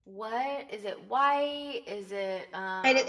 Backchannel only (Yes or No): No